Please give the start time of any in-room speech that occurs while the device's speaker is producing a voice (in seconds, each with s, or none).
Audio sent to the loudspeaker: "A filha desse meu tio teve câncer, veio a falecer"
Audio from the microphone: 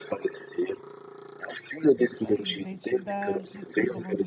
1.9 s